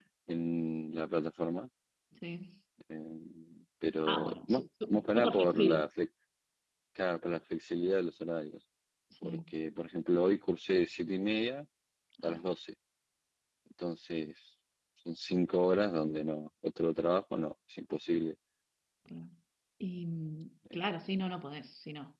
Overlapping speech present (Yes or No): Yes